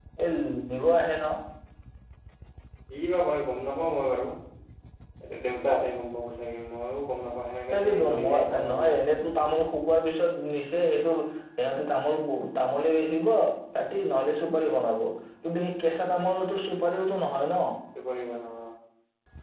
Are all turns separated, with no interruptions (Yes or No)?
No